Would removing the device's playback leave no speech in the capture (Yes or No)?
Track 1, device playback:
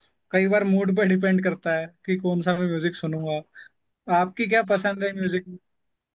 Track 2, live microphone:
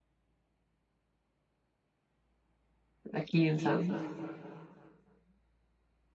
No